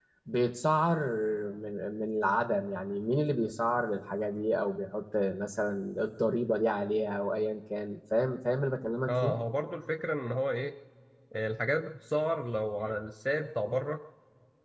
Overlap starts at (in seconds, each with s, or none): none